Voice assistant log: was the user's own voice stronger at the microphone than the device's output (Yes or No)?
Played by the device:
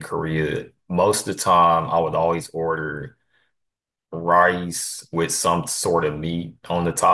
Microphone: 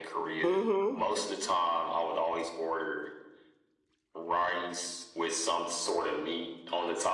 Yes